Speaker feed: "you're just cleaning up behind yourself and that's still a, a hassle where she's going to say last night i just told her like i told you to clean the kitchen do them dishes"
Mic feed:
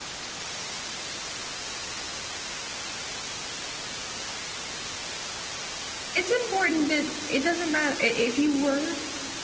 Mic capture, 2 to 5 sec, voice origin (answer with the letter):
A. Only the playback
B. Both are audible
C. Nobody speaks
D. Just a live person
C